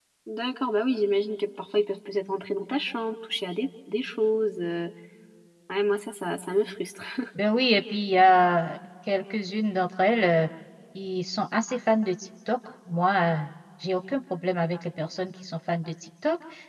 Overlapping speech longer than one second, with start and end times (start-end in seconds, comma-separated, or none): none